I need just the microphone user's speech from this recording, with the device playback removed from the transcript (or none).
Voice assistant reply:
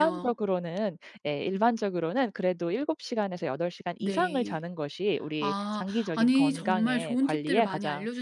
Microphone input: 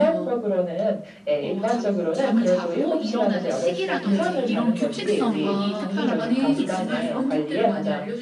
어 잠 잠을 자고 일어나는 시기라든지 이런 규칙성이 특별한 패턴이 있을까요?